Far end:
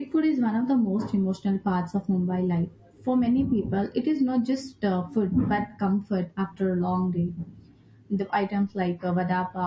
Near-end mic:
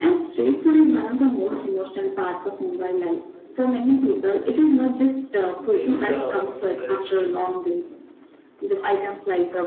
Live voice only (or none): Yes, um, that is true.